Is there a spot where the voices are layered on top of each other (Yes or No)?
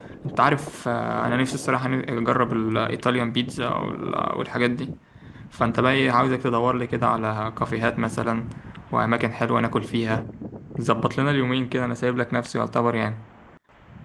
No